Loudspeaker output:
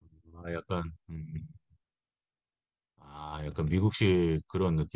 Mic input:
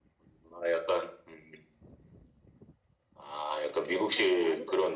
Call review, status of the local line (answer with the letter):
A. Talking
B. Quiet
A